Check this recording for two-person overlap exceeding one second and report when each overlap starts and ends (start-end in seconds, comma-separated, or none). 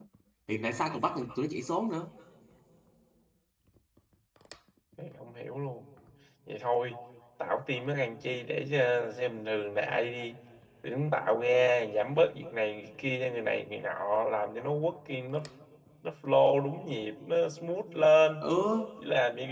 none